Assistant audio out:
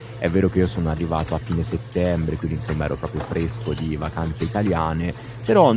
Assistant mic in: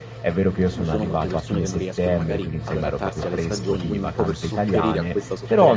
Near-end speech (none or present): present